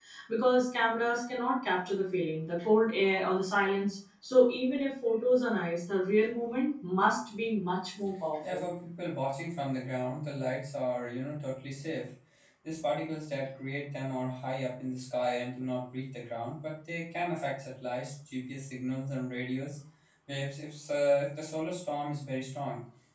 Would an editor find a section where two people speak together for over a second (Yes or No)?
No